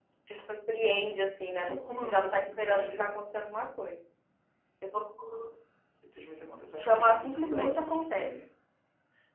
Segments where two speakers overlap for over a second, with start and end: 1.7-3.0, 6.8-8.3

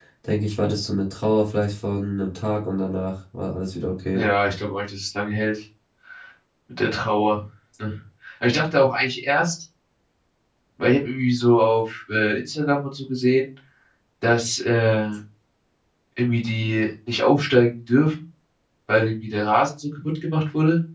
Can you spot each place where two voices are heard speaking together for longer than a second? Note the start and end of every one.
none

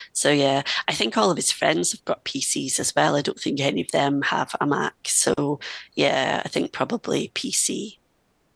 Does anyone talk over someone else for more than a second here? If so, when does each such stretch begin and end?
none

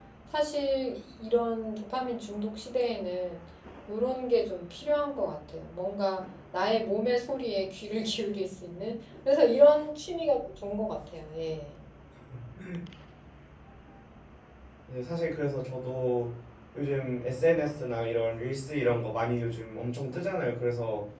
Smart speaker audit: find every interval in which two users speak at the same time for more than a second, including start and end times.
none

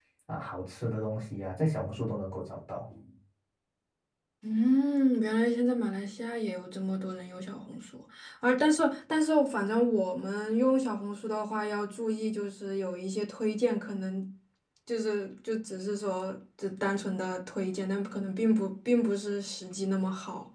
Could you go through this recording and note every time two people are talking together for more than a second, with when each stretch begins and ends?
none

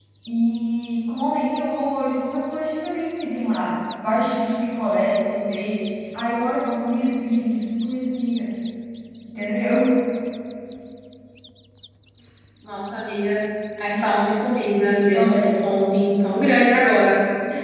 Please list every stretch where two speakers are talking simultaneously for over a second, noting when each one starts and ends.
none

